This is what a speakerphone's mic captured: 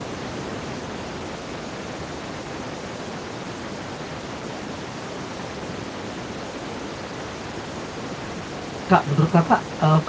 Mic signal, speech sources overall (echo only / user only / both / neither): user only